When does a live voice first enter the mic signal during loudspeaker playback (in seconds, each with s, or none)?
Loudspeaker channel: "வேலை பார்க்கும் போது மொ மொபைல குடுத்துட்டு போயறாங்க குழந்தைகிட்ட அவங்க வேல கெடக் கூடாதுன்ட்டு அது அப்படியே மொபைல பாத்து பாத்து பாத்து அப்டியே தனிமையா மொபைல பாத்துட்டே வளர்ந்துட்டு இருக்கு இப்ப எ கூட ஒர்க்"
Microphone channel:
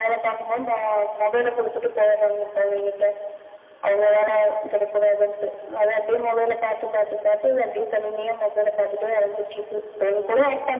none